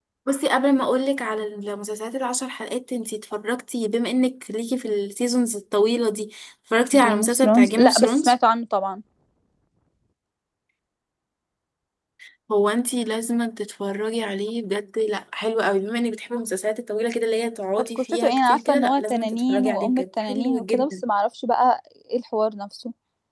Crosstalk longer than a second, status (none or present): present